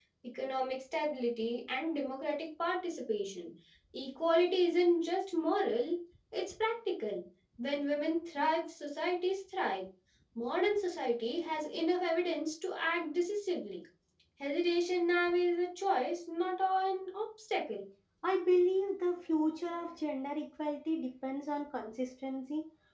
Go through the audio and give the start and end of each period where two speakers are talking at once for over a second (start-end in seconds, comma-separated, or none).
none